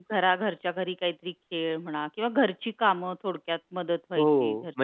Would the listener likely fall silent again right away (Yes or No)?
No